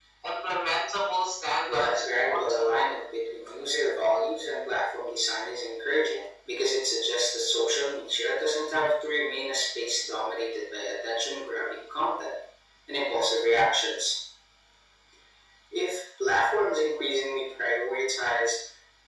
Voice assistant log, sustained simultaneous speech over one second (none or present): present